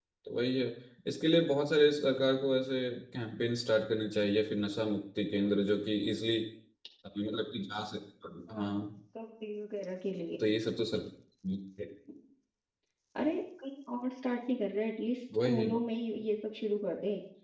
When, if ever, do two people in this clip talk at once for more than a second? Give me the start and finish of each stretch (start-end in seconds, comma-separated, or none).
none